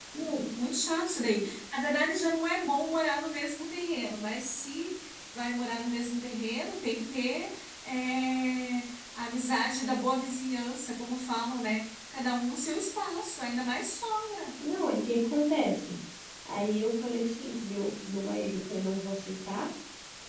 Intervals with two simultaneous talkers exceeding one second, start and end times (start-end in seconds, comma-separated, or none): none